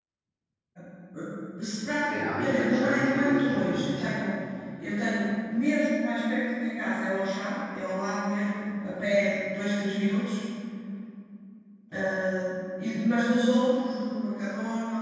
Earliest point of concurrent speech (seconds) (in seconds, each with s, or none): 2.7 s